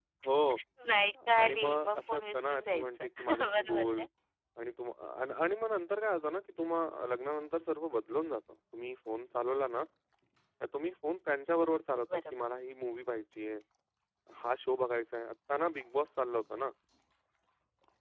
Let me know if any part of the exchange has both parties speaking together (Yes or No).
Yes